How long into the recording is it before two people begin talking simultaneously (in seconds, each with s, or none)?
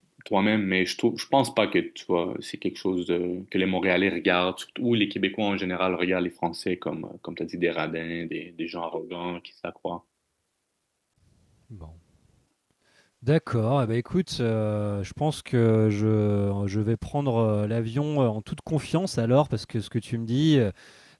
none